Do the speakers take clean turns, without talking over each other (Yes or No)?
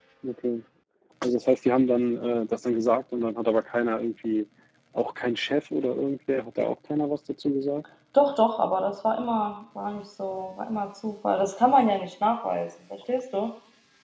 Yes